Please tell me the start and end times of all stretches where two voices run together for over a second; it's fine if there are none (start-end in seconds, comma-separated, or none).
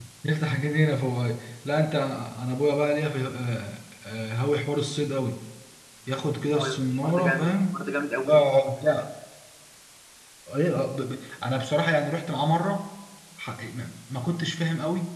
6.5-7.8